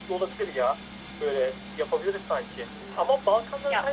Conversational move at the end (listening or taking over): listening